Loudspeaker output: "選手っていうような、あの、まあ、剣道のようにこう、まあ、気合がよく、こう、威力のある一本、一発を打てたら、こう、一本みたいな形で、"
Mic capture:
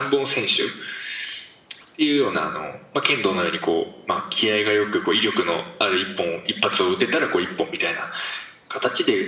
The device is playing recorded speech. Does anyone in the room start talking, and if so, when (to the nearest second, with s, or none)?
none